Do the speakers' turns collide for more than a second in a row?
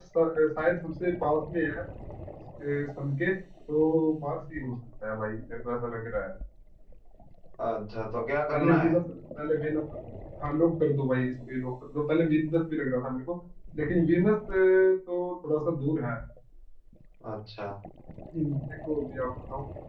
No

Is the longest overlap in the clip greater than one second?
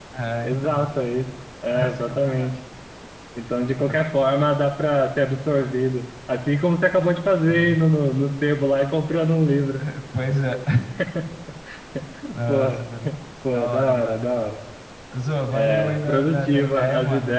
Yes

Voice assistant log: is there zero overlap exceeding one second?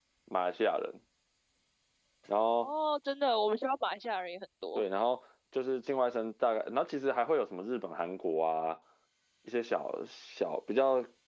Yes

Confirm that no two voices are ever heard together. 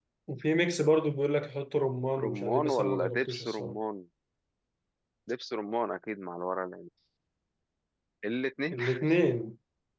No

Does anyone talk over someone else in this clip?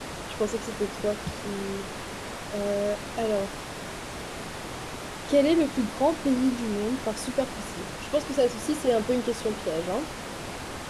No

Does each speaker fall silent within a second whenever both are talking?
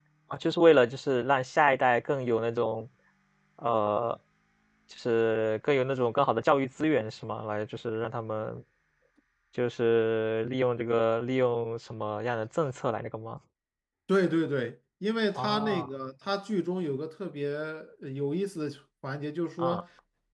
Yes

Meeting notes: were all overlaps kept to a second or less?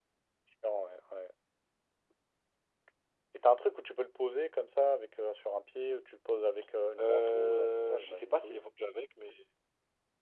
No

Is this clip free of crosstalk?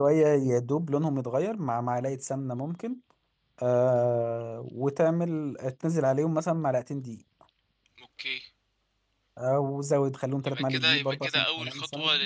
No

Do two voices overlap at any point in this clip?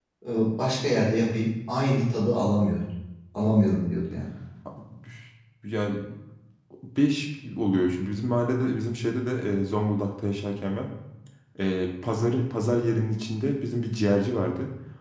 No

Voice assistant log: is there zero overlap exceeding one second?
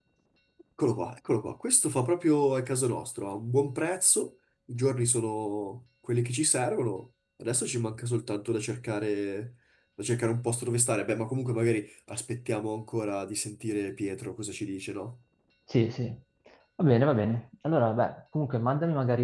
Yes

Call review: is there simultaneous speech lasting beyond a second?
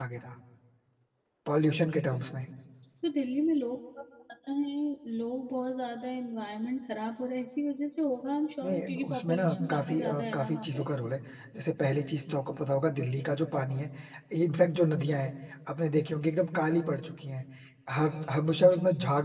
Yes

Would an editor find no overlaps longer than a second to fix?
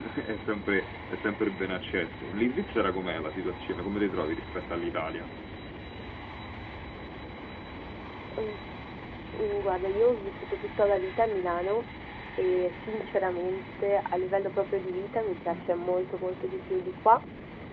Yes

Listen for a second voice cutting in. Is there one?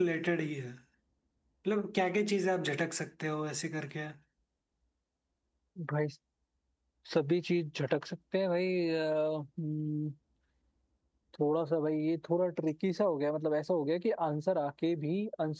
No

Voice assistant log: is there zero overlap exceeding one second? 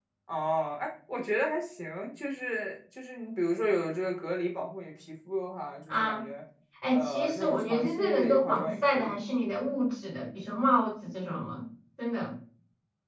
No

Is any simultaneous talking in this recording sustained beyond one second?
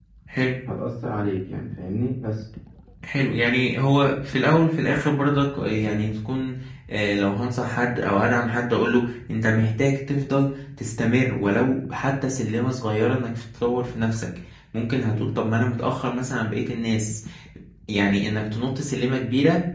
No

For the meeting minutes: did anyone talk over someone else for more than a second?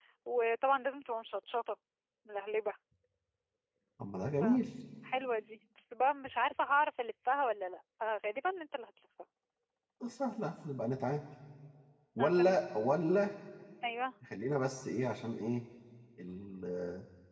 No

